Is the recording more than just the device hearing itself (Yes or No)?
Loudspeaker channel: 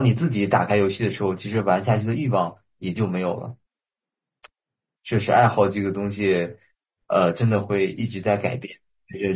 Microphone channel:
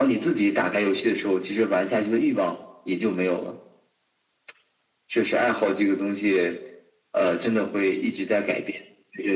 No